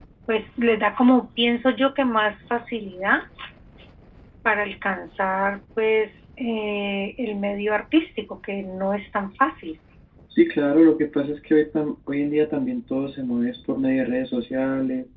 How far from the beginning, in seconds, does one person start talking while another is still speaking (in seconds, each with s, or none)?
none